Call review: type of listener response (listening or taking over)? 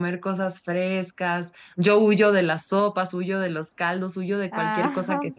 listening